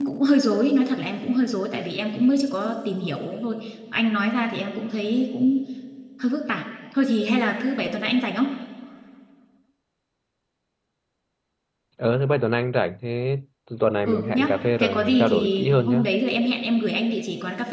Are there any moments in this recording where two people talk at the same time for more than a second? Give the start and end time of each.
14.1-16.0

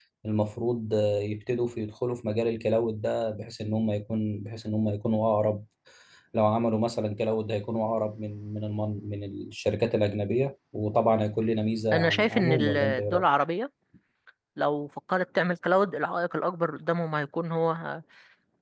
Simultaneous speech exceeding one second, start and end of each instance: 11.9-13.3

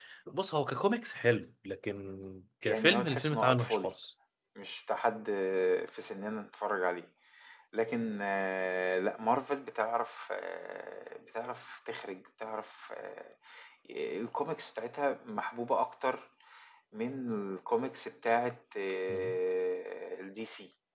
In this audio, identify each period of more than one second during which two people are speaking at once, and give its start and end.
2.7-3.9

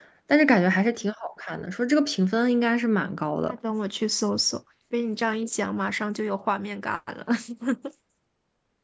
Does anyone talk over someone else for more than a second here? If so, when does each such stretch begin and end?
none

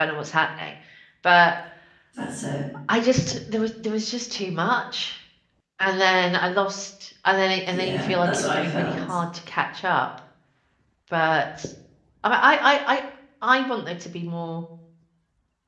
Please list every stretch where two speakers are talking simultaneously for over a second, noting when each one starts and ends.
7.7-9.1

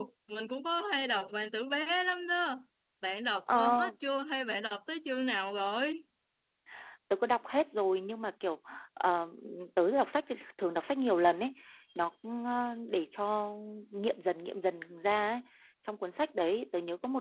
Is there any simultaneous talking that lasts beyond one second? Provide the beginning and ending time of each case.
none

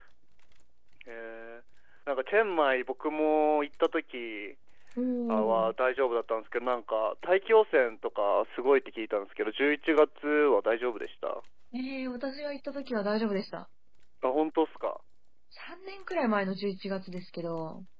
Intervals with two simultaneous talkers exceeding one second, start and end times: none

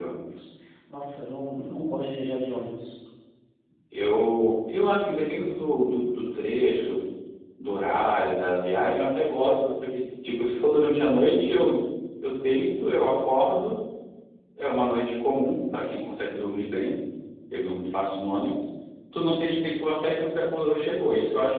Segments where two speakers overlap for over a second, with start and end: none

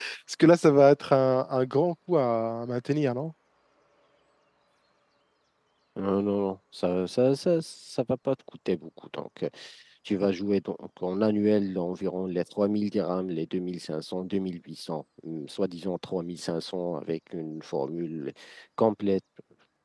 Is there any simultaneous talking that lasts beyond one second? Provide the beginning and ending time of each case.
none

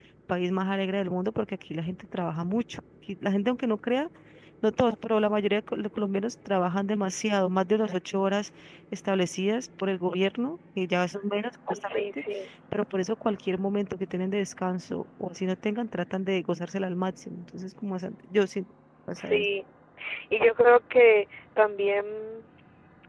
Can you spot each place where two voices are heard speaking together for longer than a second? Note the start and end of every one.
none

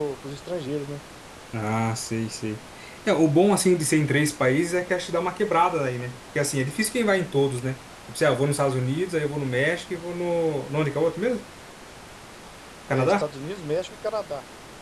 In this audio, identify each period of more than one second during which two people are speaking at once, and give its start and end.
none

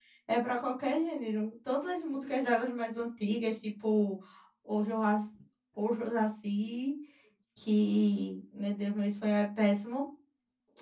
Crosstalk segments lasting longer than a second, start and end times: none

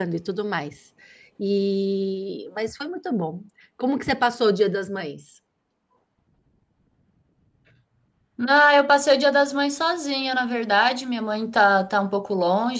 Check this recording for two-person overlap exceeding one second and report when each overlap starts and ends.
none

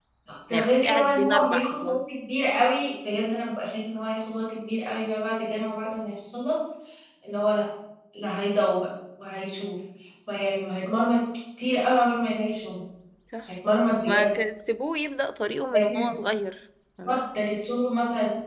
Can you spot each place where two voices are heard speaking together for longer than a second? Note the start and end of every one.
0.5-2.0

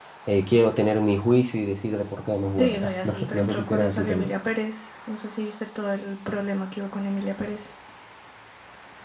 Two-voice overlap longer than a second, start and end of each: 2.6-4.3

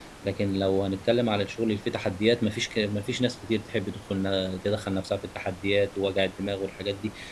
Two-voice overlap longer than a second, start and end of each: none

